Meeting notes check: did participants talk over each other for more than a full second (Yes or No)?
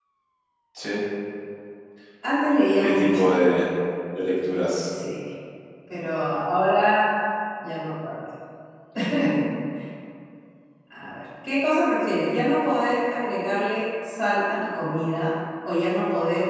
No